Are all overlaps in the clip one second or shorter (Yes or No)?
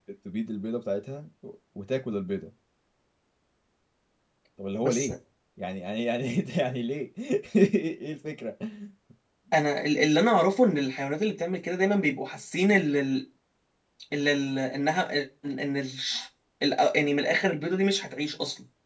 Yes